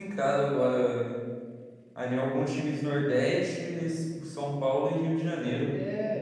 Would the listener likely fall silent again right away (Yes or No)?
No